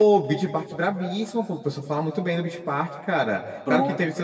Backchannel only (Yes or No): Yes